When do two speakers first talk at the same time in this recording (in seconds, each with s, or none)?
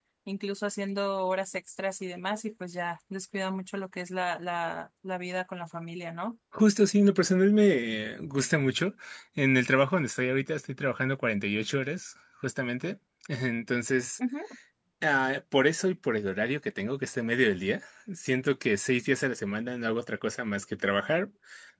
none